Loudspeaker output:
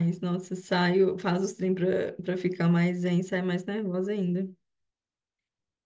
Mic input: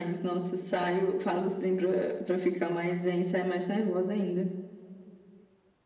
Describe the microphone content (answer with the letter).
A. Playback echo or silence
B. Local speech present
A